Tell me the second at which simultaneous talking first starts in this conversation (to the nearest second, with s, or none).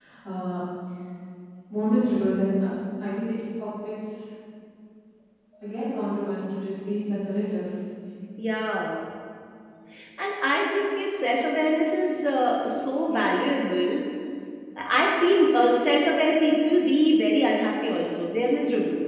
none